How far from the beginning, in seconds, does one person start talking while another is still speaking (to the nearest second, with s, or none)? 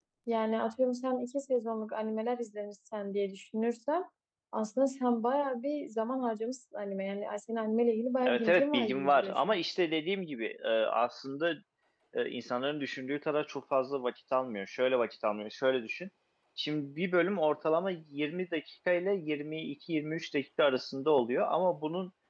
8 s